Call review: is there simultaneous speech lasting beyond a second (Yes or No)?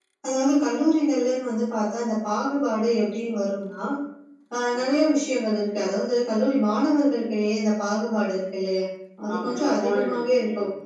Yes